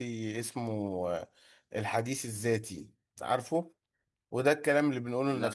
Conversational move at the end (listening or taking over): listening